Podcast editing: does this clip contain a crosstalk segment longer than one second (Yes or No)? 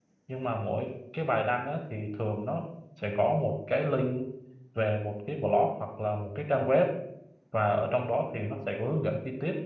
No